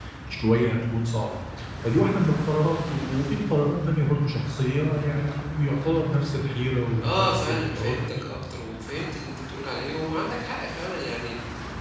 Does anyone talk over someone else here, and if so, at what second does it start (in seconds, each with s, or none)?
7.0 s